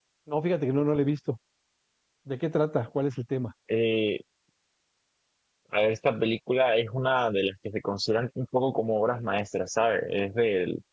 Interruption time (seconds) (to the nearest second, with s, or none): none